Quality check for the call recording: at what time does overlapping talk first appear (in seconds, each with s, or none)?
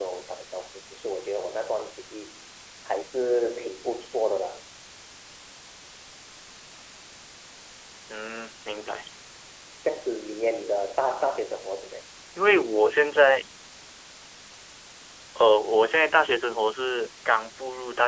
none